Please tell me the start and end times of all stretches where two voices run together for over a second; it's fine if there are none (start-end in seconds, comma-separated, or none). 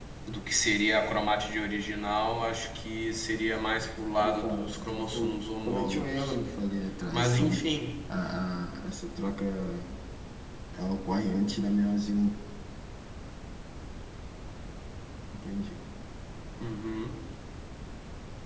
4.2-6.3